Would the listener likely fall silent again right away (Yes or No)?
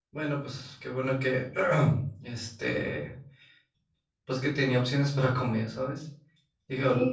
No